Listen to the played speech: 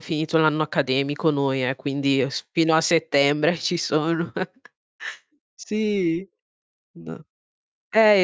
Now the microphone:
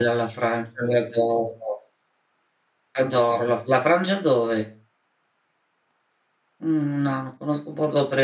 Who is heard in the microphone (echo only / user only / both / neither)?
user only